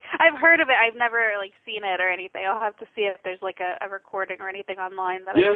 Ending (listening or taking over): taking over